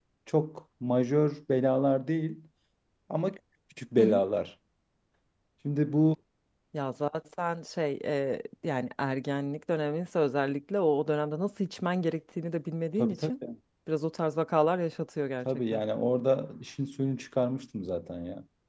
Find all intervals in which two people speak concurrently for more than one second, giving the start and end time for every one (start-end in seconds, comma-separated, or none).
none